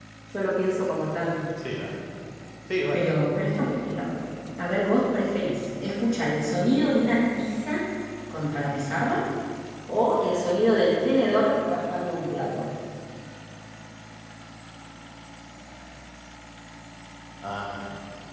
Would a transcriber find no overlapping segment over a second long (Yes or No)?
Yes